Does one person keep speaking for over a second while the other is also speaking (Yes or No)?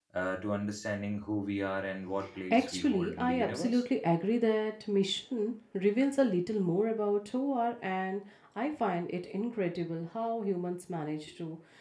Yes